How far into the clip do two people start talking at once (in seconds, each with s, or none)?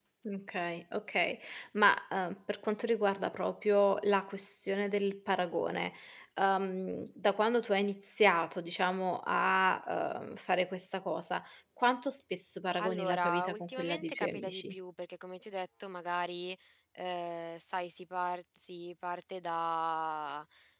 12.8 s